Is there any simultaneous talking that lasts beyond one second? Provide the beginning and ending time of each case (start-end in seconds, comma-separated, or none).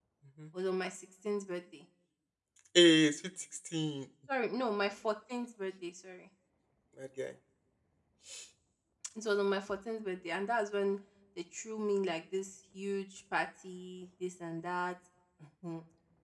none